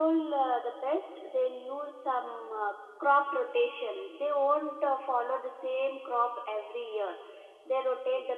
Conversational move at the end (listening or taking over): listening